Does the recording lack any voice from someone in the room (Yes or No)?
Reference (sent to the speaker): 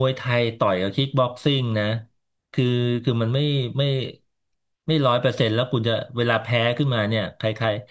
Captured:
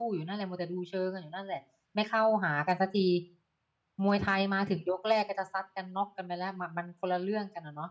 No